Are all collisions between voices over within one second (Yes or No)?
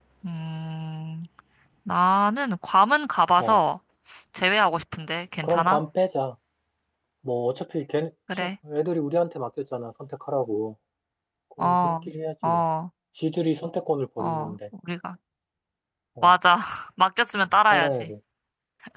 Yes